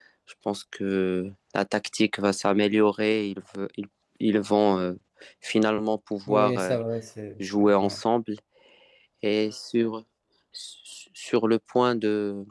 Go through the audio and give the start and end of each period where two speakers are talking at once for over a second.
none

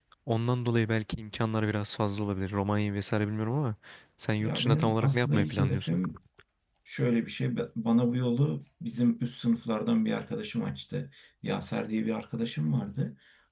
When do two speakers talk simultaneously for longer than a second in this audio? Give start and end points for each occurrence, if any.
4.4-6.0

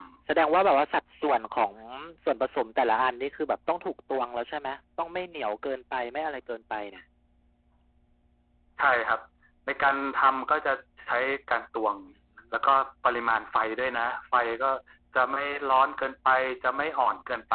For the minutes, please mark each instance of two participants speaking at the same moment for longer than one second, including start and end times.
none

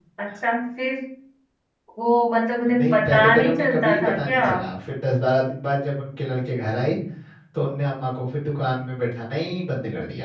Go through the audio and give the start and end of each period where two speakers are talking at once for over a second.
2.7-4.5

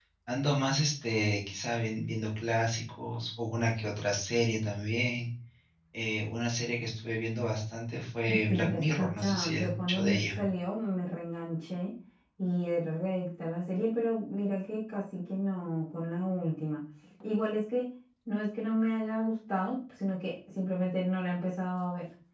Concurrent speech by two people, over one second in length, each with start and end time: 8.5-10.4

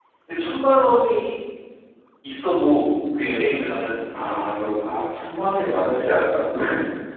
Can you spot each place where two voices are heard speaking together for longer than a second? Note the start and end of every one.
none

